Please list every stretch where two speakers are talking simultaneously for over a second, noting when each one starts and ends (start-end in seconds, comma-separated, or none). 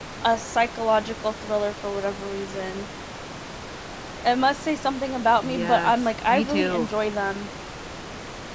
5.4-6.9